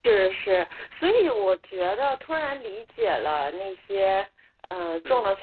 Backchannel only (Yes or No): Yes